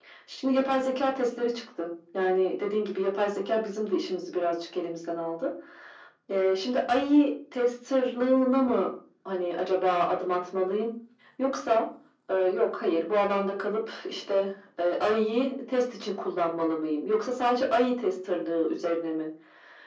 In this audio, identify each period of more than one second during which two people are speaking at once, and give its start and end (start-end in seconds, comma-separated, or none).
none